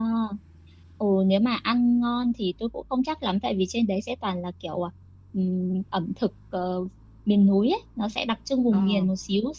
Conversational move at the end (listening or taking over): listening